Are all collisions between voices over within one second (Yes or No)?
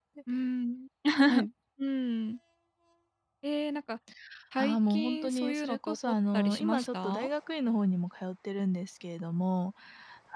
No